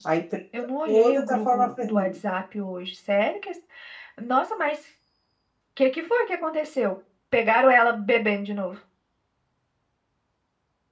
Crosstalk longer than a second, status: present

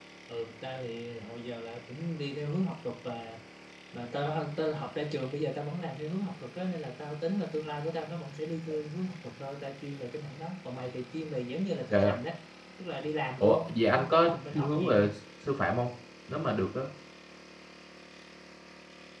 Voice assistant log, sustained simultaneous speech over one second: present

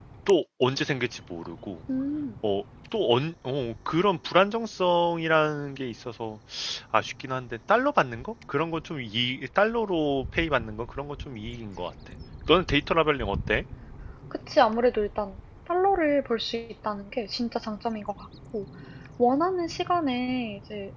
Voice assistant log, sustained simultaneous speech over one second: none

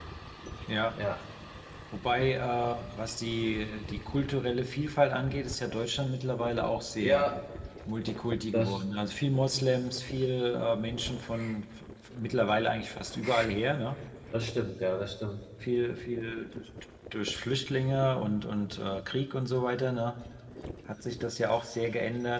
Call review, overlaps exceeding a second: none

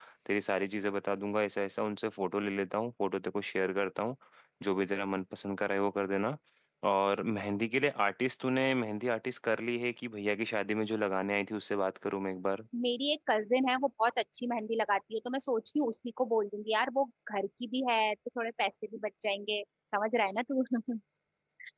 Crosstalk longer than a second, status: none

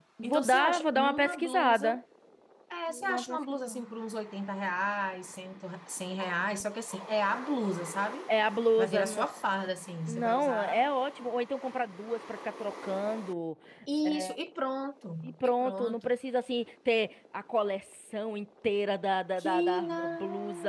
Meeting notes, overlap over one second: present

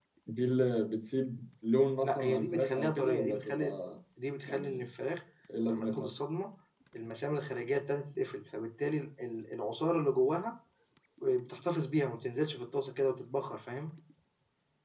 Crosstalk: present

